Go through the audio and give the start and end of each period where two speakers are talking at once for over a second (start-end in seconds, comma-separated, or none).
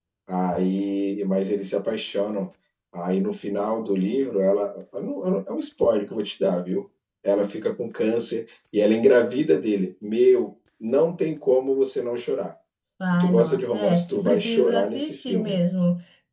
13.0-15.6